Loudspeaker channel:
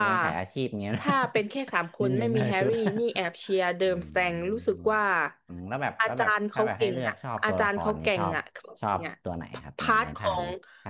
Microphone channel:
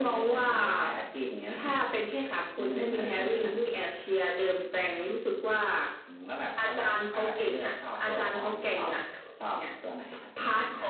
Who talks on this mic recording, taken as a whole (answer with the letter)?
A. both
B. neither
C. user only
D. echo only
D